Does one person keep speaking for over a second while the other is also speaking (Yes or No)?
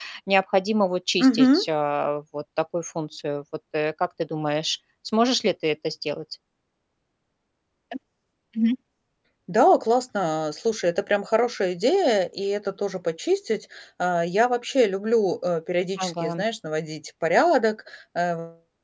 No